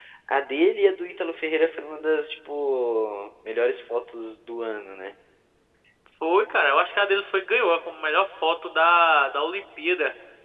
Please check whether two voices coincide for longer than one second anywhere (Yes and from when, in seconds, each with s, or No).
No